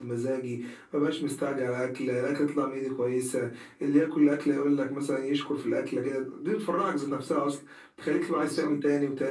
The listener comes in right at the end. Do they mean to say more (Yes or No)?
No